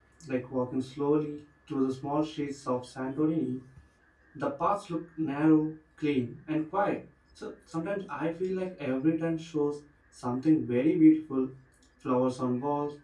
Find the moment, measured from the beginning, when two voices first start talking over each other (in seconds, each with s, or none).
none